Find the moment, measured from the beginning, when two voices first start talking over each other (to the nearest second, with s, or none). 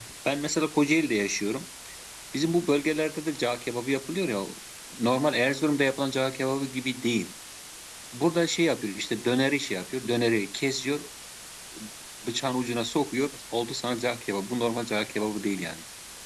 none